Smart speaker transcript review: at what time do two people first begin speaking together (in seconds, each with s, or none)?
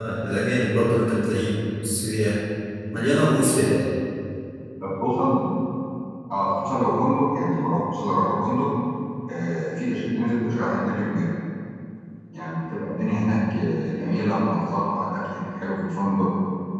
none